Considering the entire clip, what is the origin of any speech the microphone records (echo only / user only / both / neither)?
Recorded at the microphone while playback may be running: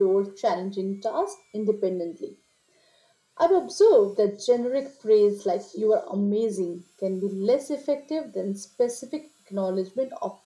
echo only